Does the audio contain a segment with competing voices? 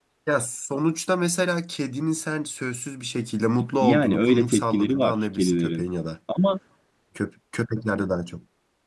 Yes, from 3.8 s

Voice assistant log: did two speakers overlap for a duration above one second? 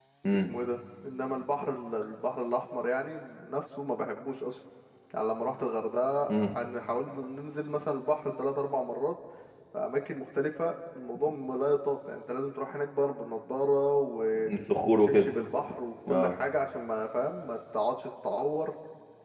No

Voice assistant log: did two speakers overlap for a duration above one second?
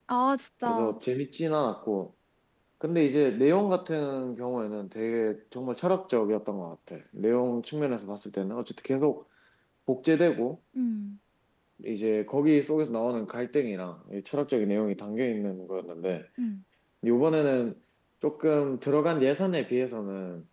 No

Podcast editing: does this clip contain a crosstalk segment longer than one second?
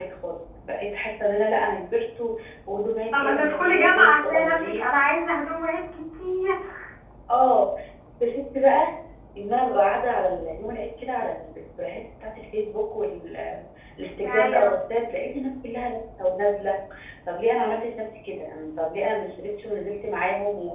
Yes, from 3.1 s

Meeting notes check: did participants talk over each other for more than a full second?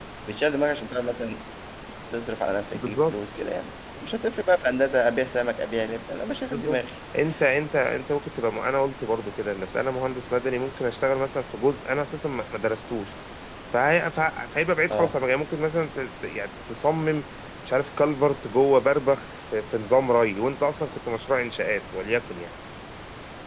No

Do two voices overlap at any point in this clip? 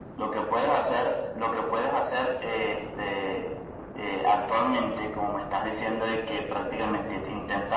No

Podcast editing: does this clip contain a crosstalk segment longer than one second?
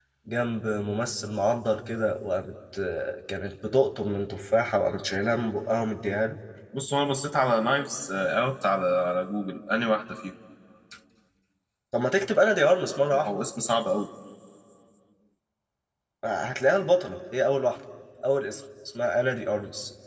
No

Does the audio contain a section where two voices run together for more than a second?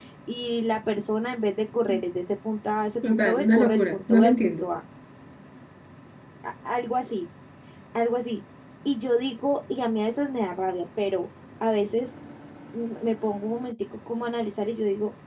Yes, from 3.0 s

